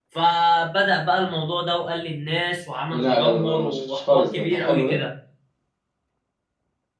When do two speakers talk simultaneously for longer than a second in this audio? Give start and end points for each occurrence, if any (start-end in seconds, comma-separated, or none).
2.9-5.0